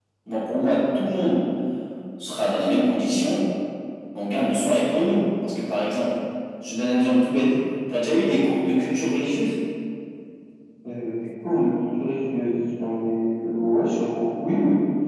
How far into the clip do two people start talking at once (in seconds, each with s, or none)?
none